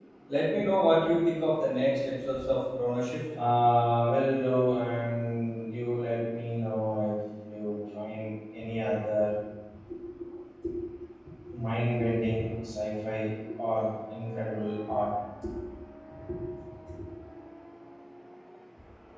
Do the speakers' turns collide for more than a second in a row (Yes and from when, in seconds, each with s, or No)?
No